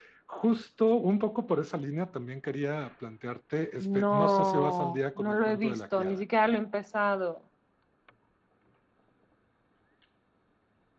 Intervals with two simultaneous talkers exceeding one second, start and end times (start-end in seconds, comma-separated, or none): 3.8-6.2